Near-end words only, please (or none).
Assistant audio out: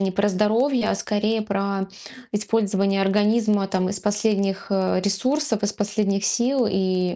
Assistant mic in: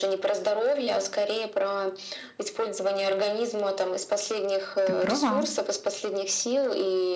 Ты права.